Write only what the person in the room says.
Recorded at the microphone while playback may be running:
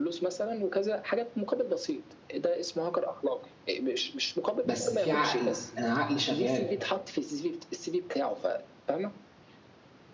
بس في عقل انا عقلي شغال

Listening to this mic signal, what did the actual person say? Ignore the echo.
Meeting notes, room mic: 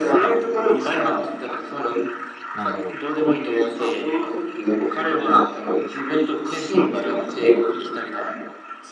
なんだろう。

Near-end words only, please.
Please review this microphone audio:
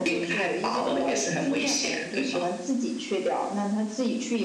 none

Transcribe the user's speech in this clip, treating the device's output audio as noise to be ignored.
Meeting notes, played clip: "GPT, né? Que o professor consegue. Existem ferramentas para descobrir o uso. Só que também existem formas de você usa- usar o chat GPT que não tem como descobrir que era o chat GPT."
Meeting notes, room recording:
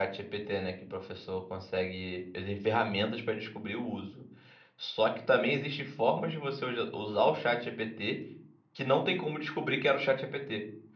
none

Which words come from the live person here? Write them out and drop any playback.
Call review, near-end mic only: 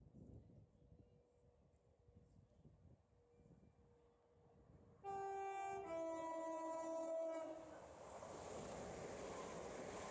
none

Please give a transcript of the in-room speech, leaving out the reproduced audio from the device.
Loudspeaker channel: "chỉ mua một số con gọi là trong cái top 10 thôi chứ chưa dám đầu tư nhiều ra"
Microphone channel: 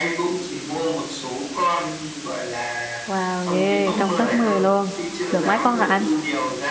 Wow, ghê, trong top 10 luôn. Được mấy con rồi anh?

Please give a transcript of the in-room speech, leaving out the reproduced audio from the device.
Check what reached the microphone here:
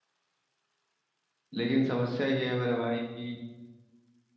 लेकिन समस्या ये है मेरे भाई कि

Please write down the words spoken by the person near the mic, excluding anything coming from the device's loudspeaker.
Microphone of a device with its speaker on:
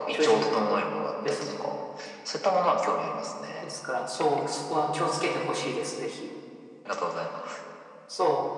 none

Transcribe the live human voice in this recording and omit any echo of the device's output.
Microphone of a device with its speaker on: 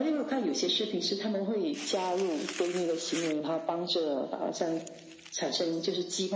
none

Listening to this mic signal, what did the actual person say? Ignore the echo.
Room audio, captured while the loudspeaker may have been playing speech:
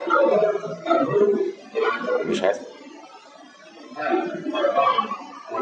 مش عايز

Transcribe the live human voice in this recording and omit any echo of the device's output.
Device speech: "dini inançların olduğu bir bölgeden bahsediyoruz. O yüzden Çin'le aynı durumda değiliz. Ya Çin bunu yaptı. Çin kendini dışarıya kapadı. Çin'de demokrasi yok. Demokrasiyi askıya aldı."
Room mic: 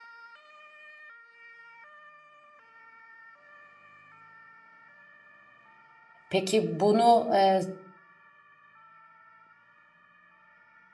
Peki bunu e,

